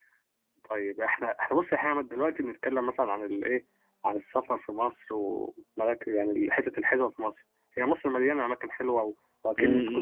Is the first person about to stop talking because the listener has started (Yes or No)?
Yes